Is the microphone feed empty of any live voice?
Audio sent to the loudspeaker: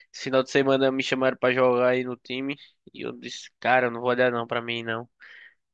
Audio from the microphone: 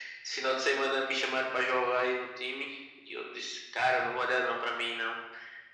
Yes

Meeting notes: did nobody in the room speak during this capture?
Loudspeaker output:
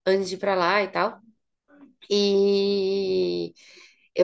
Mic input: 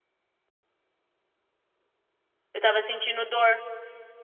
No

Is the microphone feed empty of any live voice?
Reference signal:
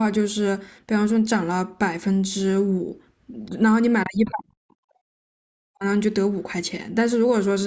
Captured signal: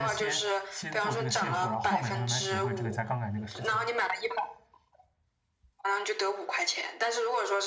No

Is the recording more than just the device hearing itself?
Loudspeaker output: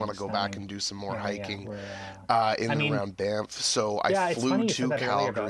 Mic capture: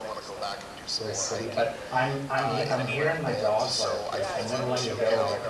Yes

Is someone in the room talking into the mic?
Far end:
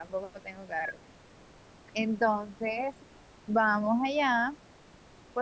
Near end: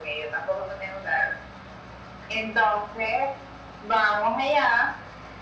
No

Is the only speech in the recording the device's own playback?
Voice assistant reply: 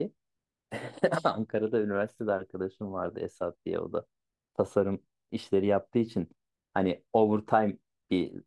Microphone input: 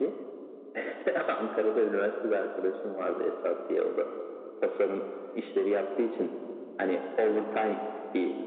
Yes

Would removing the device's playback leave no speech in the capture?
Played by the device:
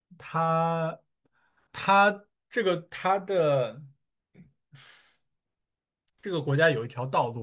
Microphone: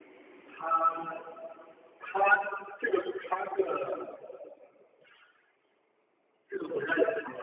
Yes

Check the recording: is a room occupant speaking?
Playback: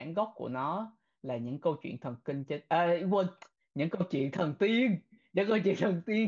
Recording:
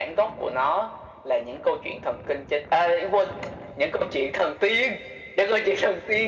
No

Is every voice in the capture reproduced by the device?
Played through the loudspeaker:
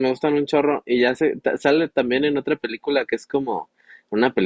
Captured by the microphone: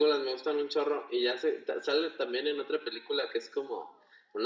Yes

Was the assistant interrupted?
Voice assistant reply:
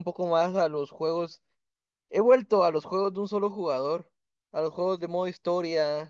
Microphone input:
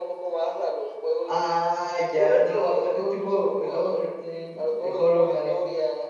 Yes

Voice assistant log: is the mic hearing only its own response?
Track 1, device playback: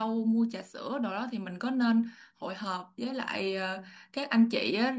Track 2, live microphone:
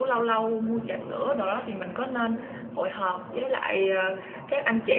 No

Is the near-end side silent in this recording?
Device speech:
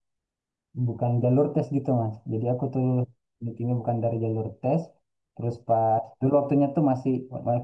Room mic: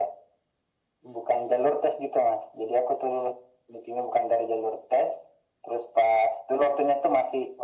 Yes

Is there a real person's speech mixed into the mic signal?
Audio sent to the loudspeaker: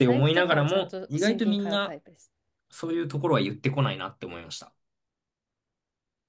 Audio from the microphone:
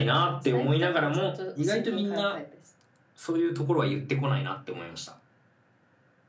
No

